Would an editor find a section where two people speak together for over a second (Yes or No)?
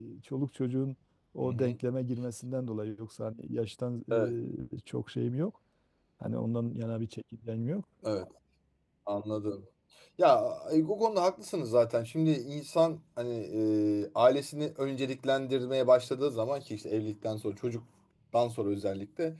No